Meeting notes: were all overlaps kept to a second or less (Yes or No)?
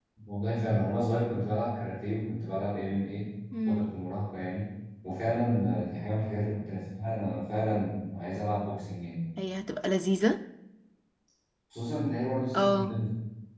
Yes